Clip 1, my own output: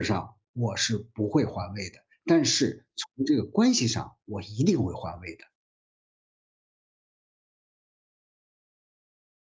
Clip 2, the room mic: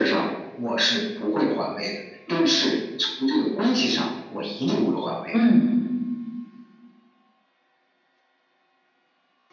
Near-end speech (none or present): present